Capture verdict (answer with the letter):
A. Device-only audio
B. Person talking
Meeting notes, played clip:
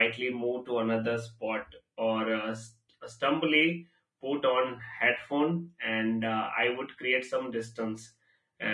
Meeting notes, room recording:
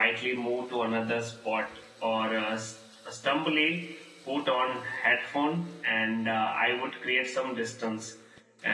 A